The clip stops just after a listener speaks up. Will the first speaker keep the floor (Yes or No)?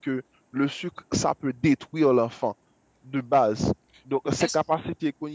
Yes